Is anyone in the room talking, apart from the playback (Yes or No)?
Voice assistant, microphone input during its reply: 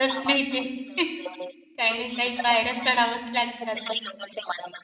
Yes